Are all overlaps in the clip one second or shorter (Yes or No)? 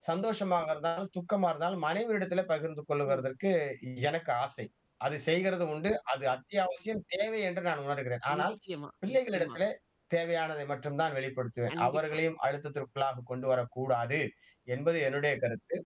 Yes